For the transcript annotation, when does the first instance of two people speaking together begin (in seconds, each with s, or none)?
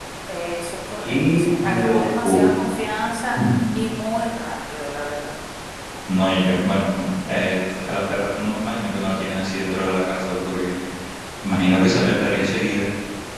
1.0 s